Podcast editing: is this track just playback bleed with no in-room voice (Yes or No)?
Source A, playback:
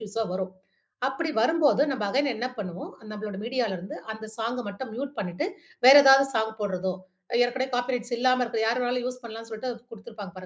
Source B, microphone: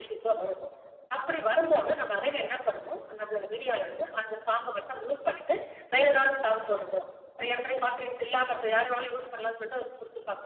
Yes